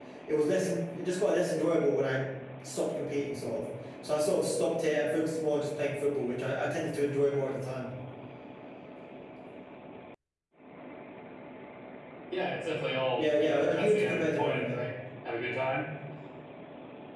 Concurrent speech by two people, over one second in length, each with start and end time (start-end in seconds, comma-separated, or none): 13.2-14.8